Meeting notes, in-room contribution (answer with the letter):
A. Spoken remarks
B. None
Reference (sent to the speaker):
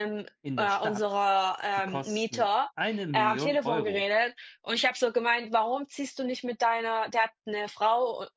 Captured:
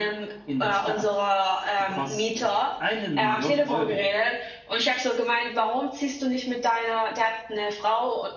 B